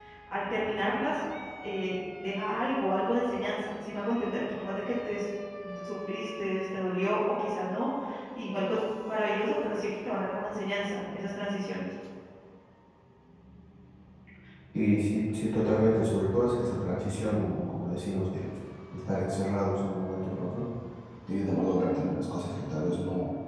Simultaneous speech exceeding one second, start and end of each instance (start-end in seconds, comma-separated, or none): none